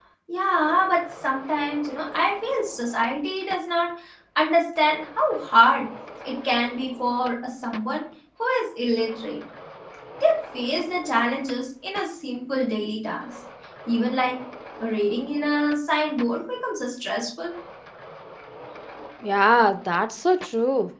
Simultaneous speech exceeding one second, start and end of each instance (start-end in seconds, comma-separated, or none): none